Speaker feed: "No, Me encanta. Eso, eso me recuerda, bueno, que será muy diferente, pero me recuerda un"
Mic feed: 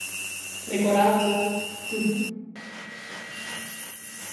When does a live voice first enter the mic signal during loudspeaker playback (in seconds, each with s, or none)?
0.7 s